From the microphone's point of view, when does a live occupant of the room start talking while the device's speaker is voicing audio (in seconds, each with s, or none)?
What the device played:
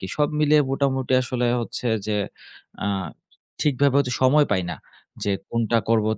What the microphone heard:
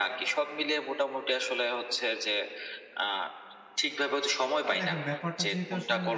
4.6 s